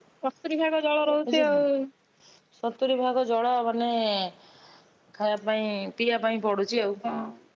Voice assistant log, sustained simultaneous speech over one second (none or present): none